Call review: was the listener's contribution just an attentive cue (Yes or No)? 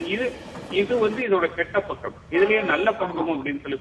Yes